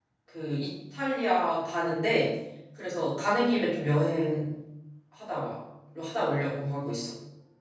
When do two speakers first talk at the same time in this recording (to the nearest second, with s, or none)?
none